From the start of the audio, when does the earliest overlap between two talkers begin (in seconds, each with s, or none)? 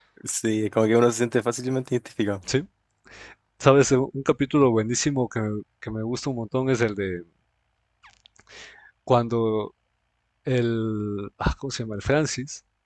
none